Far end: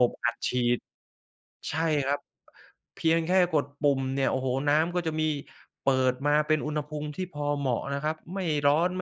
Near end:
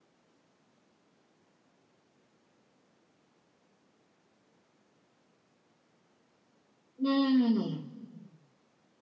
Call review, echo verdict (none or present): none